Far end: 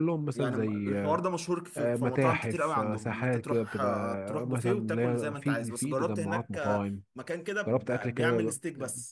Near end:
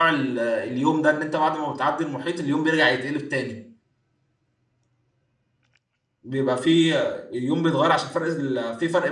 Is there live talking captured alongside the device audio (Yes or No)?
Yes